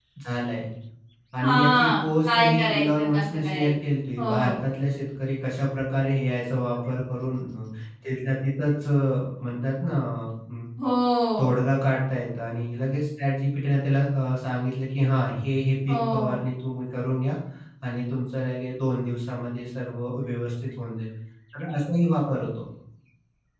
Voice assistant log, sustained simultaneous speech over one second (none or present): present